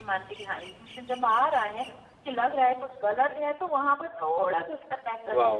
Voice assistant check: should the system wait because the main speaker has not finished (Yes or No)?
No